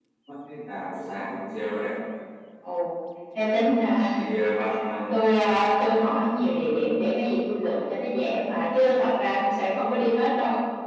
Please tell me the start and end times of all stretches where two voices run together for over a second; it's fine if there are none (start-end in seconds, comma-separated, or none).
none